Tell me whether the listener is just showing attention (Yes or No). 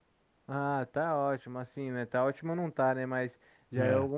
Yes